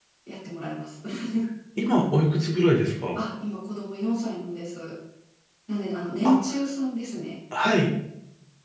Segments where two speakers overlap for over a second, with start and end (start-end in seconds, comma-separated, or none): none